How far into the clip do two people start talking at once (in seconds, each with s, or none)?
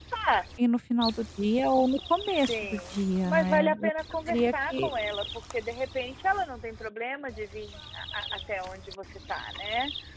2.3 s